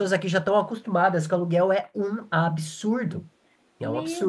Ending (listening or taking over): taking over